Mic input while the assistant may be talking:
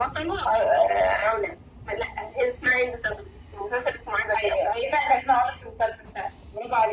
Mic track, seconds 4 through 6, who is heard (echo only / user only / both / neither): echo only